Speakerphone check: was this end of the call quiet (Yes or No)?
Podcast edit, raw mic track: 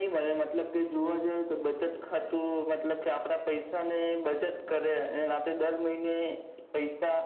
Yes